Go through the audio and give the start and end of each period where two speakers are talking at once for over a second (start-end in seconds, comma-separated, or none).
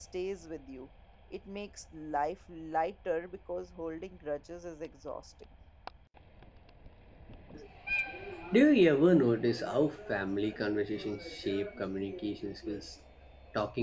none